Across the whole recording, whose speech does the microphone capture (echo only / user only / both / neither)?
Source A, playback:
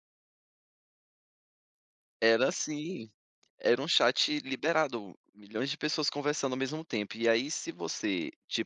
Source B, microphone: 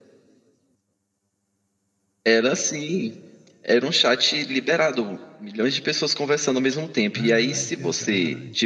both